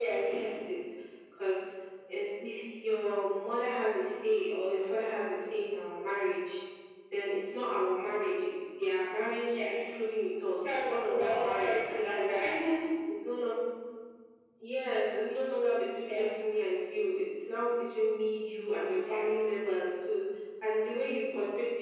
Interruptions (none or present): present